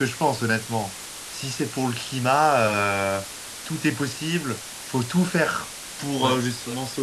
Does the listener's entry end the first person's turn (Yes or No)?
No